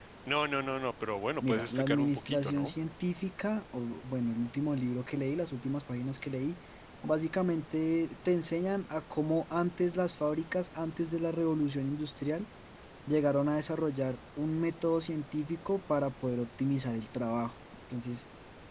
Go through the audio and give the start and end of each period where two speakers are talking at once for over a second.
1.4-2.7

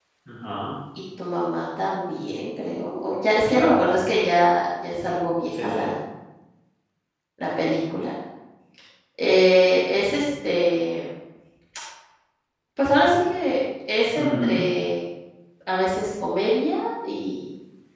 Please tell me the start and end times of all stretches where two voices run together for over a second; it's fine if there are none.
none

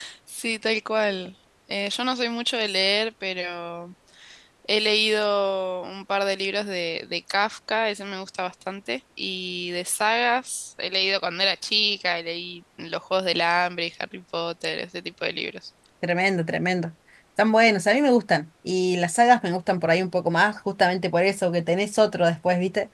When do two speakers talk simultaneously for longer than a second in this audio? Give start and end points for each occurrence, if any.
none

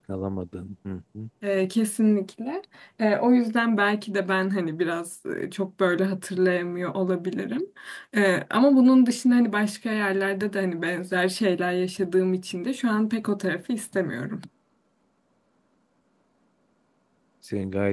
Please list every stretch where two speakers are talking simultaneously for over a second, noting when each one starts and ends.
none

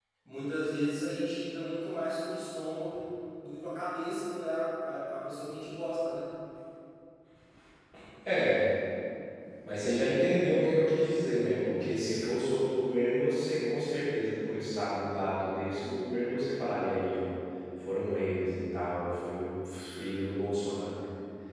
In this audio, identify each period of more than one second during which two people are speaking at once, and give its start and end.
none

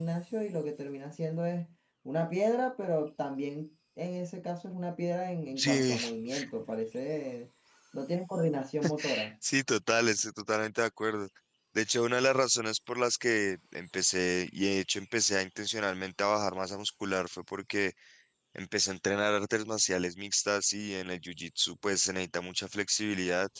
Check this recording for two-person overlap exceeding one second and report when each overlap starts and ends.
none

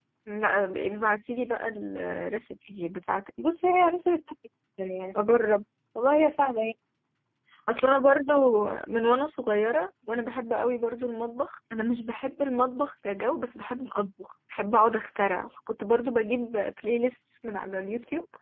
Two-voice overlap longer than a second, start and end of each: none

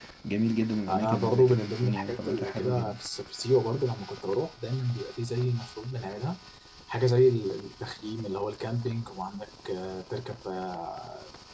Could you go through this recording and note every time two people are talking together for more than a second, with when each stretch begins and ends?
0.9-2.9

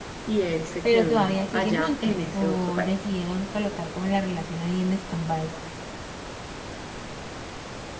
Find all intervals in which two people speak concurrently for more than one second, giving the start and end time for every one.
0.8-2.9

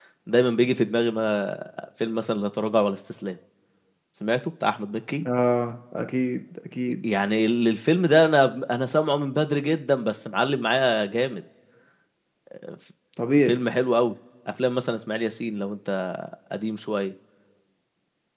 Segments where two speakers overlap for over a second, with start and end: none

